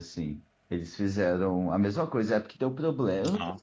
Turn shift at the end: No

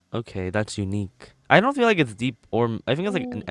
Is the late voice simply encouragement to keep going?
No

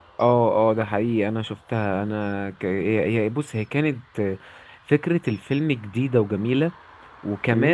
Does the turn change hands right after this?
No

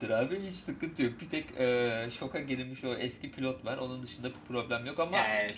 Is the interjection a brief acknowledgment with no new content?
No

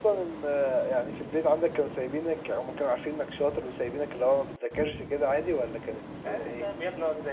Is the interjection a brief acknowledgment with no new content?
No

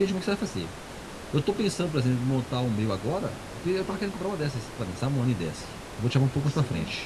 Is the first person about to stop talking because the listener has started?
No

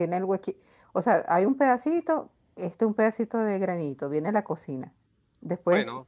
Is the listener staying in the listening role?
Yes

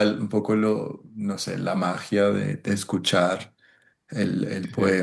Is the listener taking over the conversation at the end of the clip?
Yes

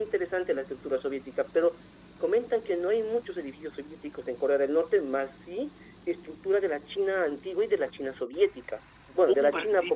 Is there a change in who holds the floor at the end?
Yes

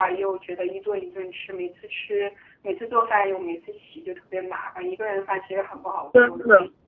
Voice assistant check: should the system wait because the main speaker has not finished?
No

